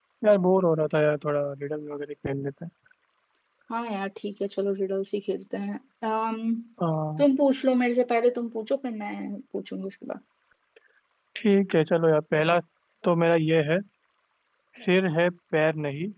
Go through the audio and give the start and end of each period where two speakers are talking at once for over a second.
none

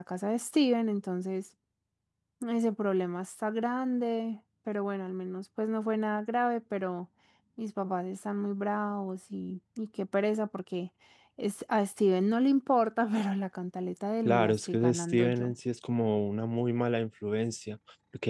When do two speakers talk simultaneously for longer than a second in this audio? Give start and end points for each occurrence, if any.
14.2-15.5

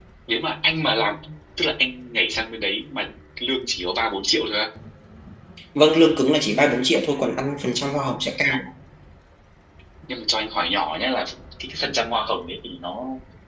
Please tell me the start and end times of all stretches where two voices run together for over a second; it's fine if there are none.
none

